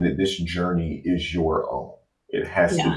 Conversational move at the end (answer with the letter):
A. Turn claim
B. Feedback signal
B